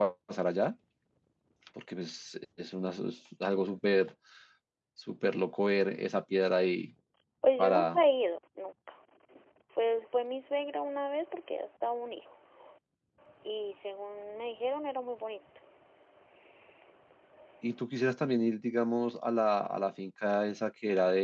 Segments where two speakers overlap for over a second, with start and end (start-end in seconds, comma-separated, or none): none